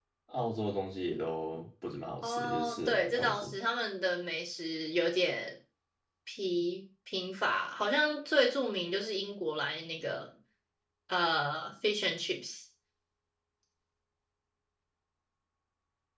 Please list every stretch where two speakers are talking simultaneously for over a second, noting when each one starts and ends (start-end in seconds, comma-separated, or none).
2.2-3.5